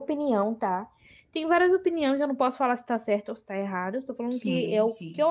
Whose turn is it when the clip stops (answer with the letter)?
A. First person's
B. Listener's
A